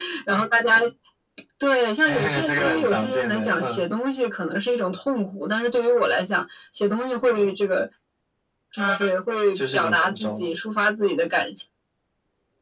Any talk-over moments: Yes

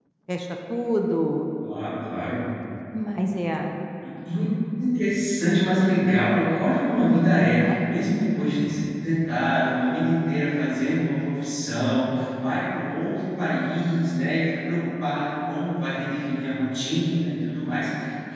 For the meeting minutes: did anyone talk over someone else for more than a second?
No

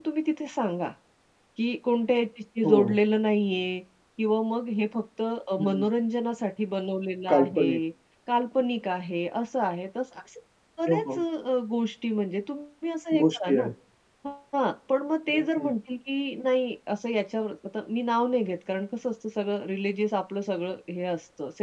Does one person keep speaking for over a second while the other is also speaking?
No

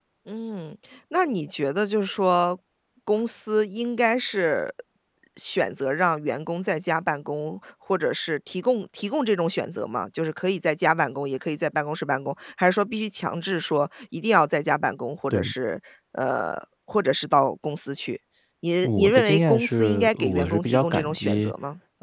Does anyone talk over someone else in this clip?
Yes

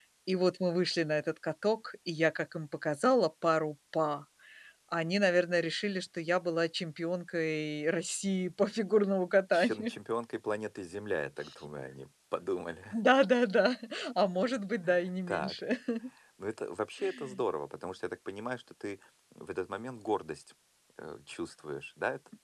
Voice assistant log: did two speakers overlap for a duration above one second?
No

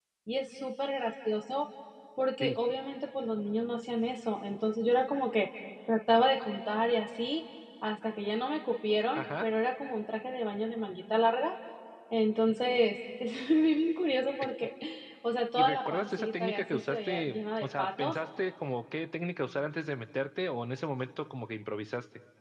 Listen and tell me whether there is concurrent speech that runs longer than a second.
Yes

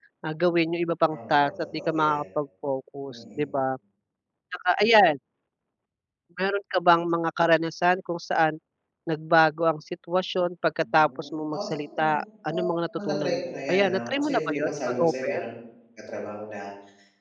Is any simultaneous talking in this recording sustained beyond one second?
Yes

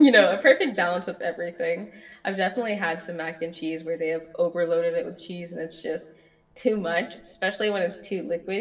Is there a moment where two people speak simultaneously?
No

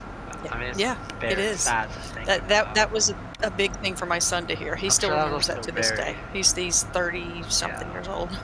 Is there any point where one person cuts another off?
Yes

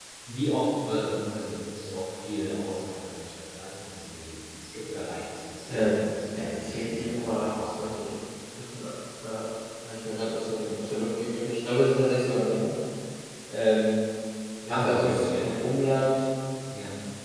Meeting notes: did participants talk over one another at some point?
Yes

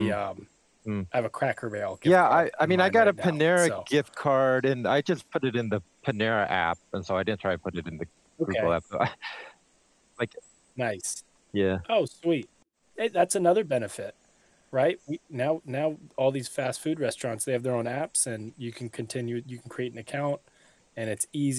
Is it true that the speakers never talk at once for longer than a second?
No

